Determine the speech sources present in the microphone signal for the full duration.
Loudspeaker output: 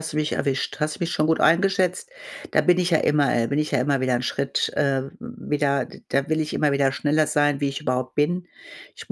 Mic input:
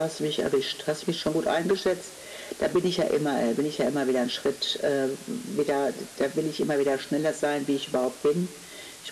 echo only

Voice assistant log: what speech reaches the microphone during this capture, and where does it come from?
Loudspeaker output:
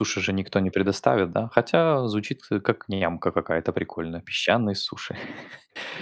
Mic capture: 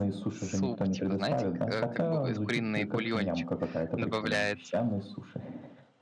both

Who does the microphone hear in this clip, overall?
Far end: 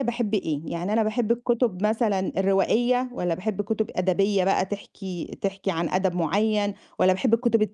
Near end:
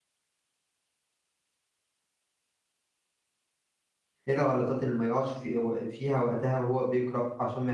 user only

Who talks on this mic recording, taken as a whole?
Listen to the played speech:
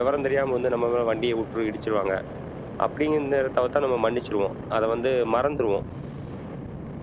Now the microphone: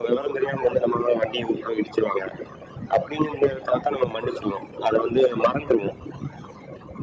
echo only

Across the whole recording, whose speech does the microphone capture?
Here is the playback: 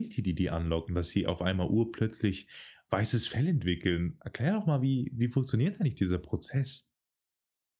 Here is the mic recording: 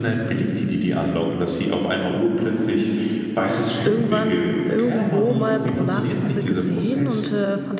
both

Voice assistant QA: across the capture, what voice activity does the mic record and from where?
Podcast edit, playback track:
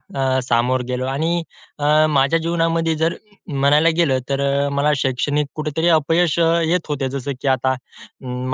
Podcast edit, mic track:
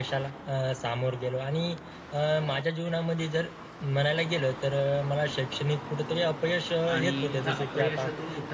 both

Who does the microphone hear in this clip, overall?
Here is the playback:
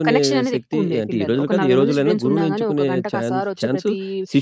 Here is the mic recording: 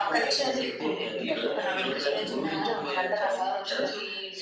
echo only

